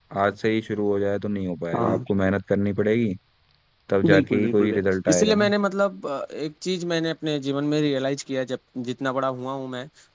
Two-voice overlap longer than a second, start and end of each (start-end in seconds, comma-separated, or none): 4.0-5.5